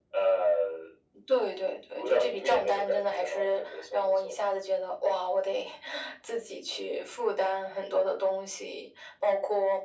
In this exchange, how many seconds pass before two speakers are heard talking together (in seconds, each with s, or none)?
2.0 s